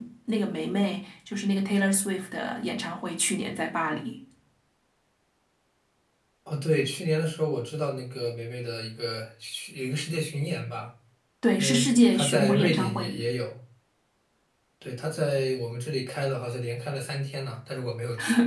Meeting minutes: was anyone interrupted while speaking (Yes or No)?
Yes